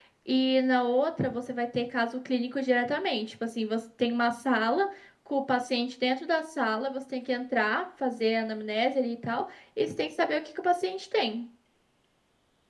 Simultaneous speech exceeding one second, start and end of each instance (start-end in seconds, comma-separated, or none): none